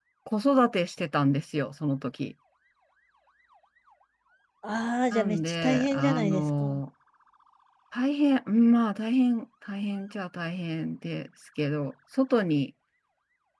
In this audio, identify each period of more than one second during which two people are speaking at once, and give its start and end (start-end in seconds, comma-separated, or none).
5.1-6.8